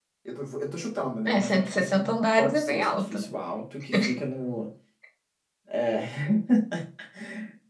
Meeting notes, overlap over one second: present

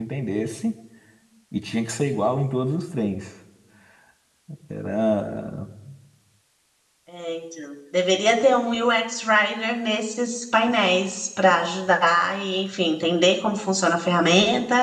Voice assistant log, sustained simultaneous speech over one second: none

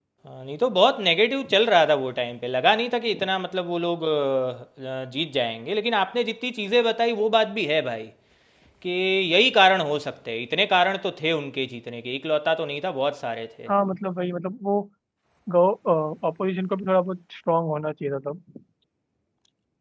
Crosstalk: none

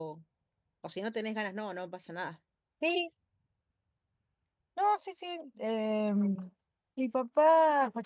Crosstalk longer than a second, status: none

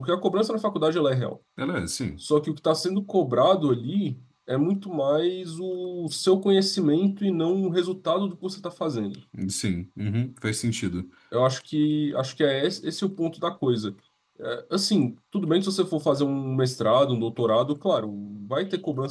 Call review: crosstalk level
none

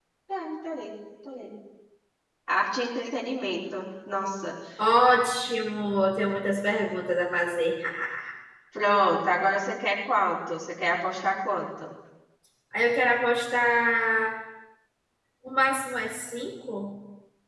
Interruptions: none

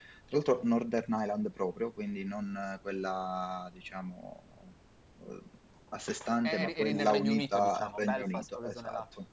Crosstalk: present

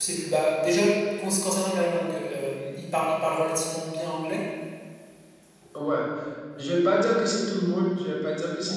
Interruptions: none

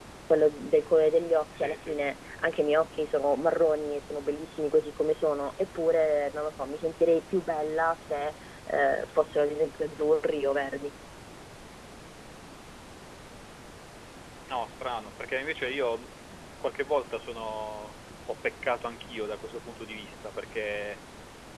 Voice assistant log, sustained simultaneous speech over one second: none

